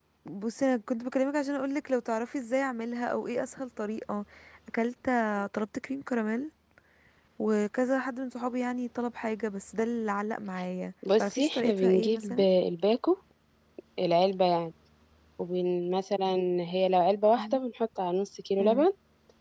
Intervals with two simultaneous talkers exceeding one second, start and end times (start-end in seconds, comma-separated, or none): 11.2-12.4